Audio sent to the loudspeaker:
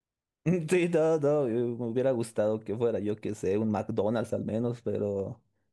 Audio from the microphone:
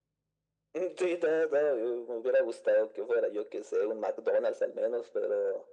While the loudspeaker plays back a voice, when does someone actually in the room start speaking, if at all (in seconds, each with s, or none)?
none